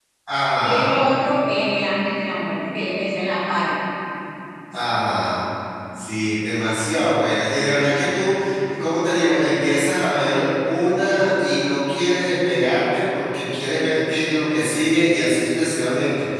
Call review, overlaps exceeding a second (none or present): none